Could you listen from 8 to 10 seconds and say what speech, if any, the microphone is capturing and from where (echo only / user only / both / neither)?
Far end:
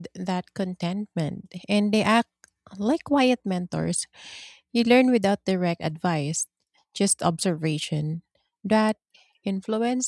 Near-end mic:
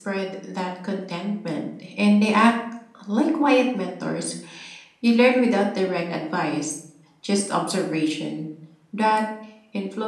echo only